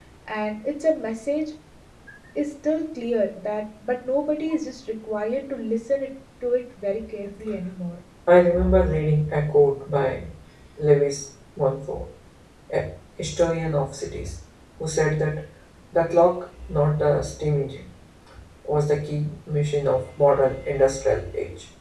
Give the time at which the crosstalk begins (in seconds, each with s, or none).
none